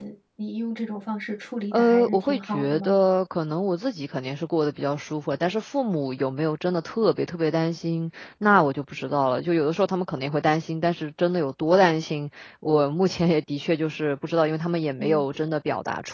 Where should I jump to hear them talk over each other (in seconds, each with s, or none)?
1.7 s